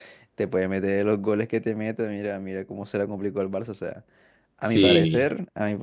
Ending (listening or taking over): listening